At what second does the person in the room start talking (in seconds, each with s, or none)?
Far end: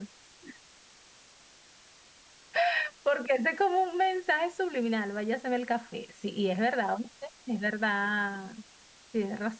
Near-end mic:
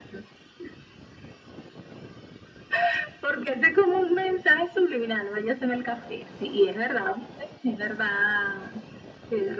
none